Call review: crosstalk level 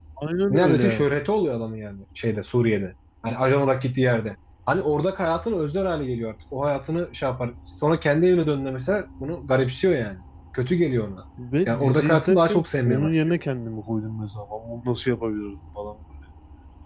present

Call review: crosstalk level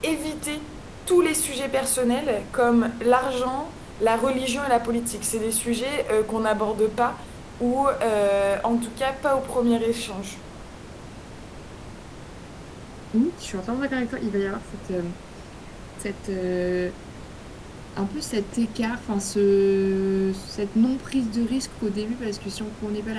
none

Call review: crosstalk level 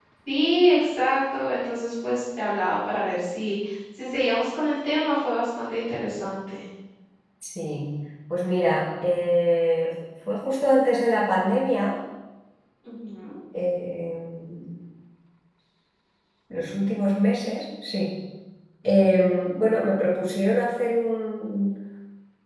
none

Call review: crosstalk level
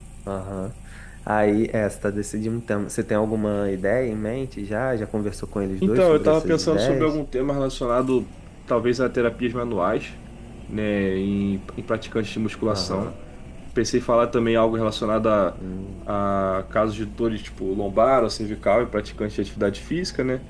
present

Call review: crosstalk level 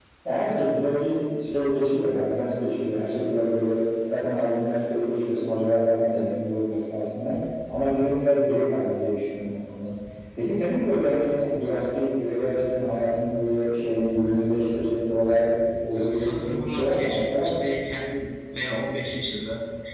present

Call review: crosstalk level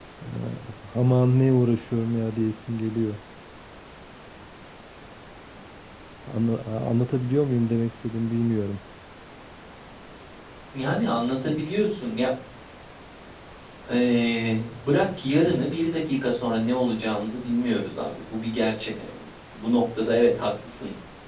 none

